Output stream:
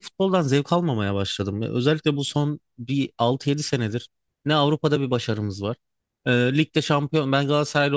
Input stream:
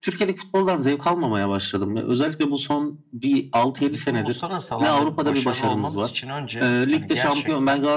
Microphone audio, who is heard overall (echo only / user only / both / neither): both